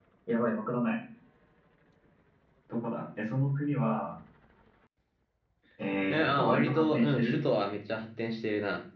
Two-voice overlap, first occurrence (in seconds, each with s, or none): 6.1 s